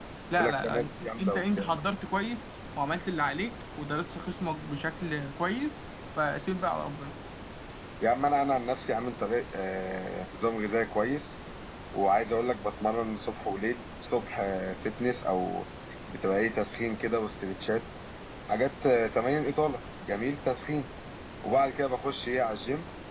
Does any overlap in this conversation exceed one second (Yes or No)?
Yes